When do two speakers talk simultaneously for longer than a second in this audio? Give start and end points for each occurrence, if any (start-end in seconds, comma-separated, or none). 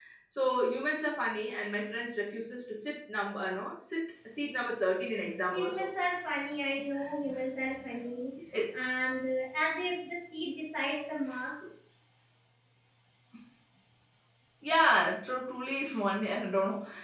none